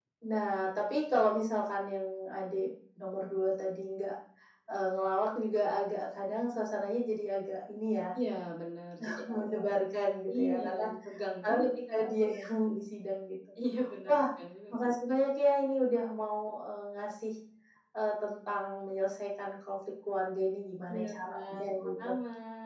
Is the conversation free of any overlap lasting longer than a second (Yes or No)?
No